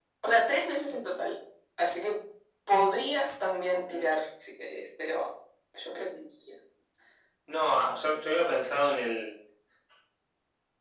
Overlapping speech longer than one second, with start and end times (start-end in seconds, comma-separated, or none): none